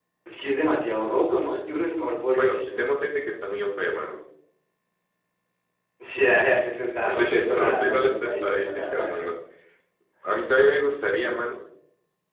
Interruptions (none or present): present